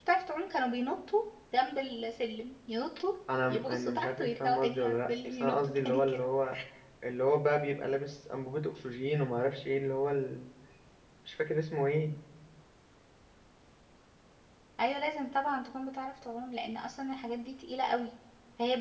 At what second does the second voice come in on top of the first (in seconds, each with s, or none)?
3.3 s